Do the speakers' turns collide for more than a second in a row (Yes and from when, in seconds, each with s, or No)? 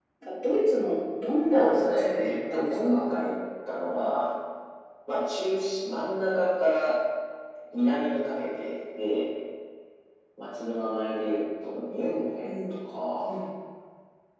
Yes, from 1.5 s